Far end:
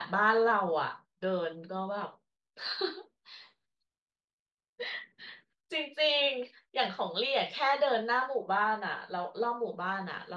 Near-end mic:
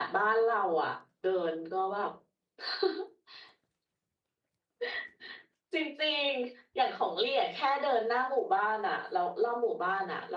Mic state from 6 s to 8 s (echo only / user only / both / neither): echo only